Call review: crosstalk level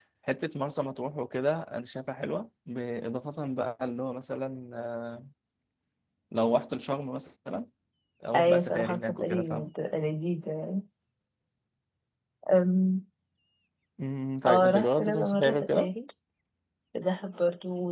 present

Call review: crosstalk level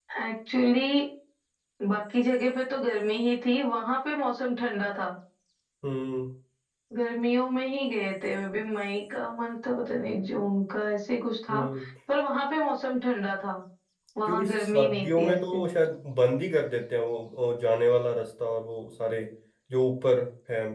present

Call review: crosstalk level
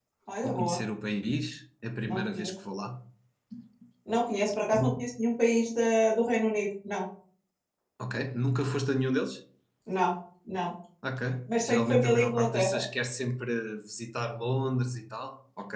present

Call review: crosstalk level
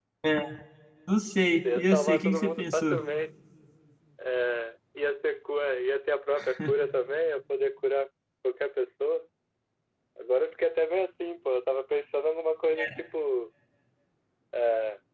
present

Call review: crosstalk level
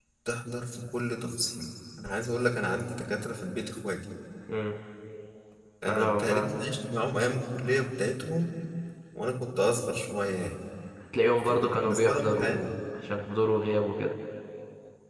present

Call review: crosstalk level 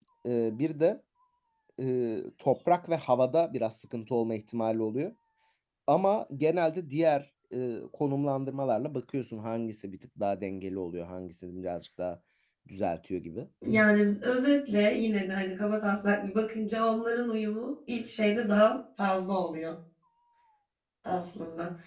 none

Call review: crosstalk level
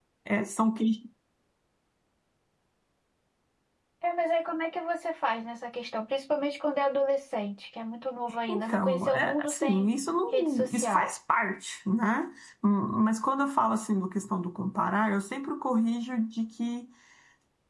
present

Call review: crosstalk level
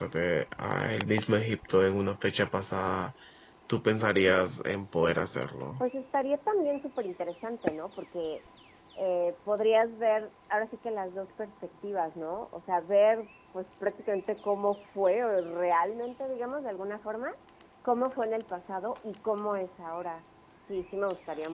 none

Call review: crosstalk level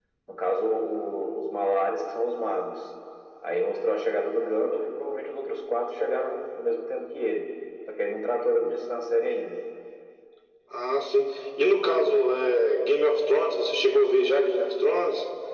none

